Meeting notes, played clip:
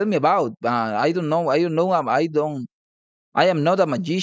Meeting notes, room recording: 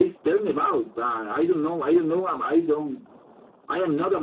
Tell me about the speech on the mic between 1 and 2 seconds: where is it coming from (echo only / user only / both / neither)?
echo only